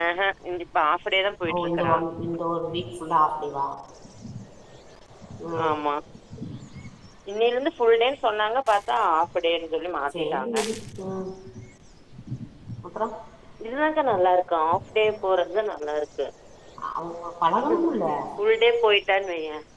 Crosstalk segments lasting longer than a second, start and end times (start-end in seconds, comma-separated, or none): none